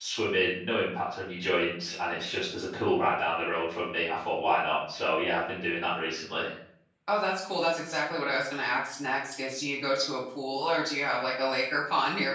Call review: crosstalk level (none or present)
none